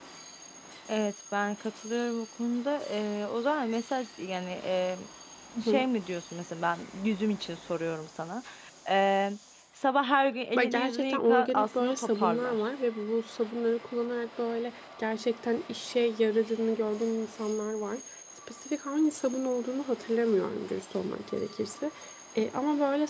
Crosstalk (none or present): present